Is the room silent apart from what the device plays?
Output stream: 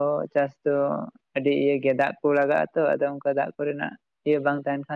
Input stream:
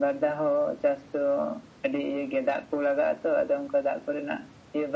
Yes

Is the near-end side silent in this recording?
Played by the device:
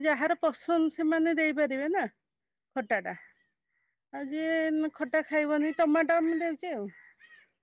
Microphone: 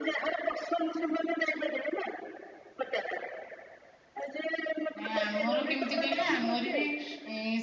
No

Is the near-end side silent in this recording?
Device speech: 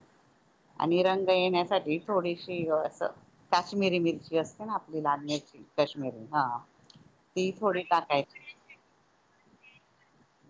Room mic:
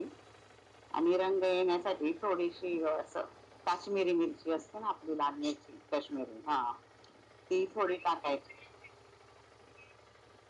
Yes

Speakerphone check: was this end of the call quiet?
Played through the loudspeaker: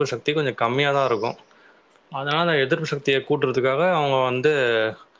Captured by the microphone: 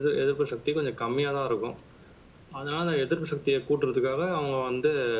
Yes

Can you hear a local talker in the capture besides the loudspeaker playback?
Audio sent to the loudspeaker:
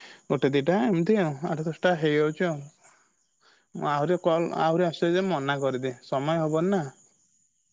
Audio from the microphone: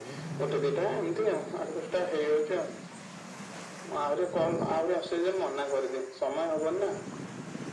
No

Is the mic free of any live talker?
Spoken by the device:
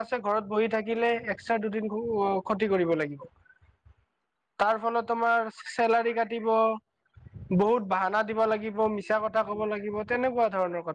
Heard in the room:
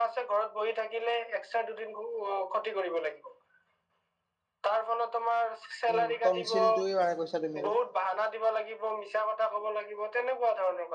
No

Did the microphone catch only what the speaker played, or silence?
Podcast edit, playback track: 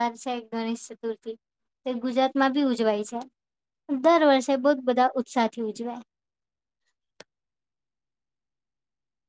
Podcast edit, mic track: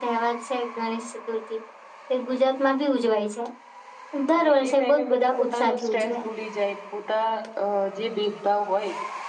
No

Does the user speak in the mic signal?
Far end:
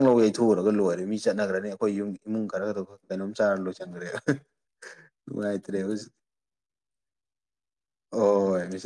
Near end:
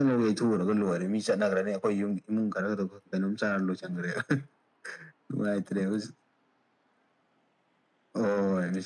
No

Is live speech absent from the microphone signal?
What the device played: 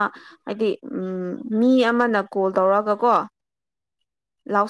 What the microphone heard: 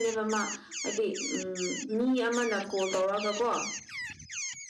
Yes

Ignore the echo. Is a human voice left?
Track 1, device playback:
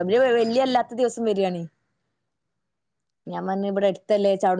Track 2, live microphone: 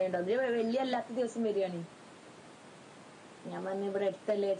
No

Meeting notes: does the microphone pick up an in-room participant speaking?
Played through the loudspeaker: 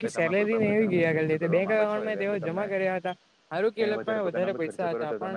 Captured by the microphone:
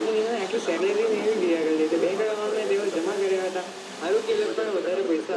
No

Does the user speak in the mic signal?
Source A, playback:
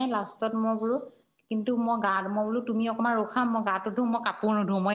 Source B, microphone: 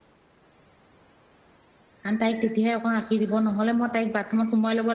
Yes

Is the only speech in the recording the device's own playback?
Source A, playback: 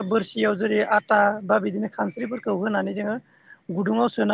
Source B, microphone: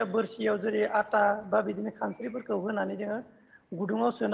Yes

